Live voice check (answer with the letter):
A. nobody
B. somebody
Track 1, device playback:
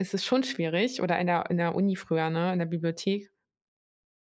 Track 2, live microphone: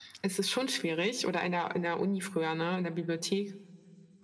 A